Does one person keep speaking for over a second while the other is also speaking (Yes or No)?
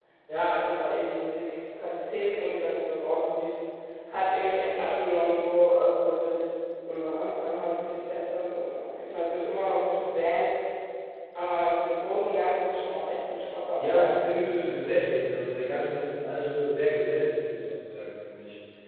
No